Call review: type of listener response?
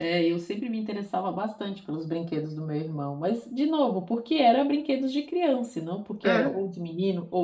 listening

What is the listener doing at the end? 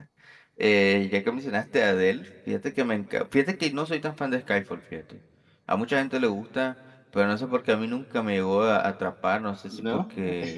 listening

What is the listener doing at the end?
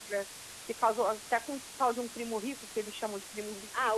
taking over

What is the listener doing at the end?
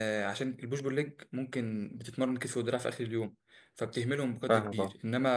listening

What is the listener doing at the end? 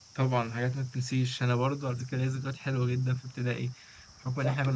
listening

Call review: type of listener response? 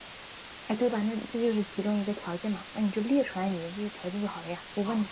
taking over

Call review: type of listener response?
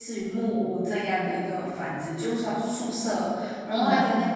listening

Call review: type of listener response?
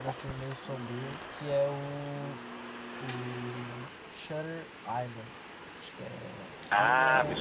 taking over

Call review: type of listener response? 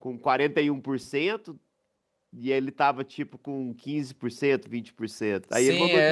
taking over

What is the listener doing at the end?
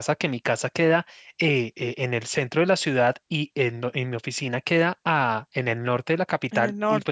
listening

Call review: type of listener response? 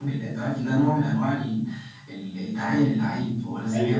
listening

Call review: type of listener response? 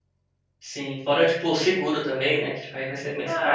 taking over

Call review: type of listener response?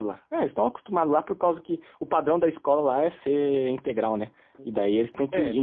listening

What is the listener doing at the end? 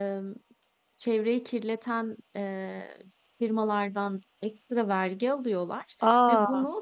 listening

